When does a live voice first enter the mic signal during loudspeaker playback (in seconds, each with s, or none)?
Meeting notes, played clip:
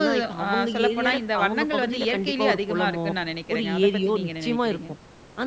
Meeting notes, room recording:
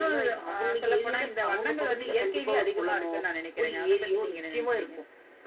none